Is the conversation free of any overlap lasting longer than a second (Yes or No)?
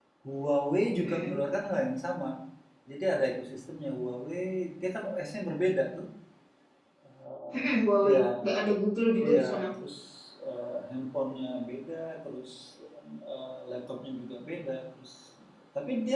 Yes